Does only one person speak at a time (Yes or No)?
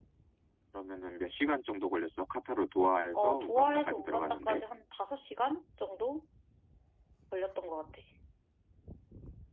No